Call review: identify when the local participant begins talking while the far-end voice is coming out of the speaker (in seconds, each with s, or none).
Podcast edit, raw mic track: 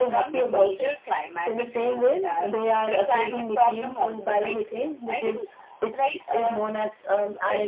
none